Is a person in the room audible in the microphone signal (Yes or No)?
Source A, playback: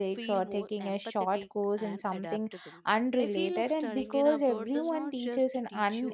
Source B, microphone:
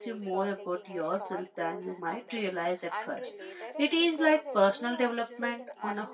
Yes